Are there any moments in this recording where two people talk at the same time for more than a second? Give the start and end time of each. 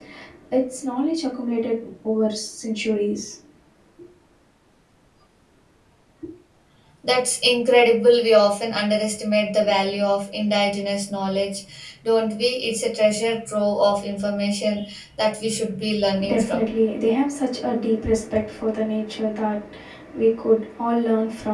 none

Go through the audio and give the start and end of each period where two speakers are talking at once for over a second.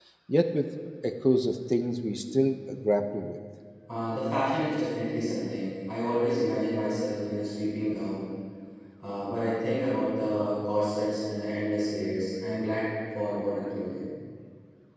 none

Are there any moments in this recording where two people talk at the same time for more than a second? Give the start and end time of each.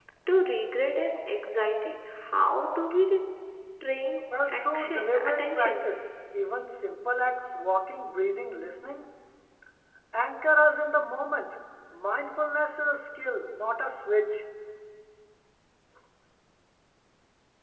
4.5-5.9

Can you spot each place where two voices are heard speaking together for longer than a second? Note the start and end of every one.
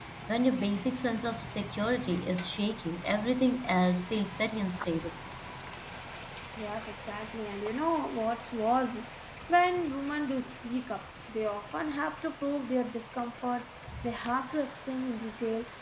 none

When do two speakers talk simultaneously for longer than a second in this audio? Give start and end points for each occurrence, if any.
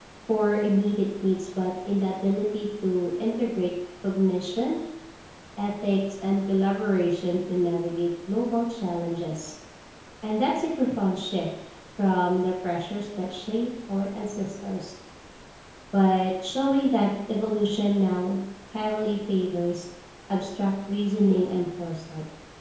none

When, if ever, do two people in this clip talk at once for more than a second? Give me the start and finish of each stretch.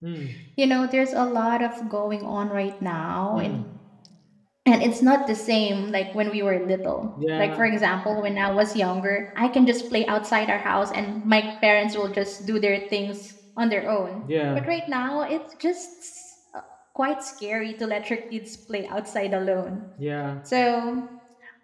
none

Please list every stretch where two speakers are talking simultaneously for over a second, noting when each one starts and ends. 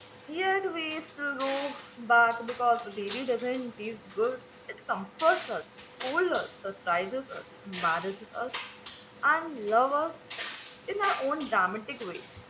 none

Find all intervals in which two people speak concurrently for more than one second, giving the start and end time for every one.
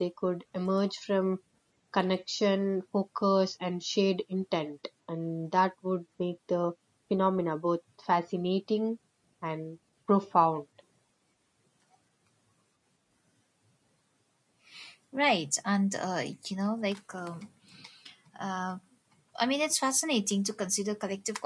none

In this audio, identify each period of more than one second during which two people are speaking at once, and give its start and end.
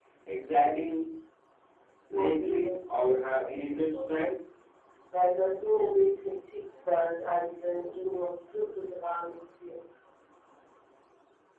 2.1-4.3

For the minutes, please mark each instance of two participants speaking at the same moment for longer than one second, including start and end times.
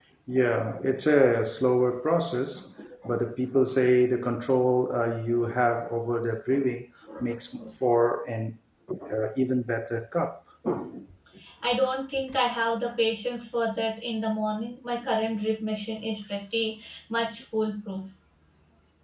none

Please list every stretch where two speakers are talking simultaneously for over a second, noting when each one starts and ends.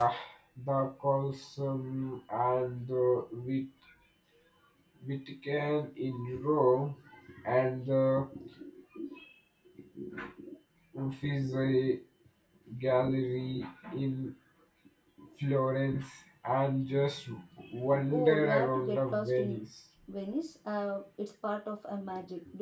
18.1-19.6

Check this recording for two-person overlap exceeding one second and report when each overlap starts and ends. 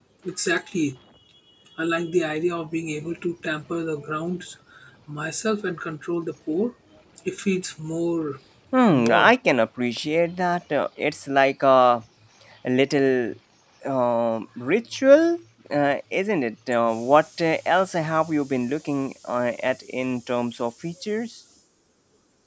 none

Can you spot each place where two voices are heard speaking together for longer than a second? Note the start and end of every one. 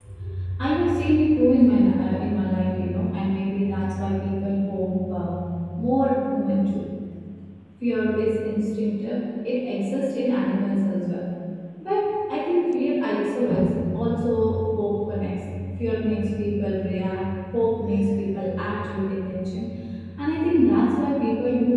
none

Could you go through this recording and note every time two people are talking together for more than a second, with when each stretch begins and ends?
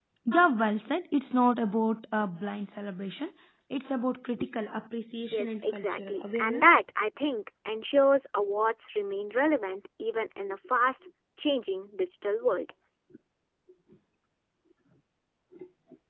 5.3-6.8

